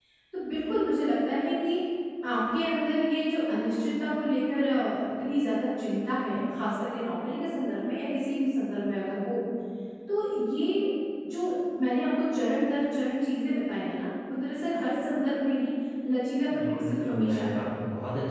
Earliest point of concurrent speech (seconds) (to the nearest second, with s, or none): 16 s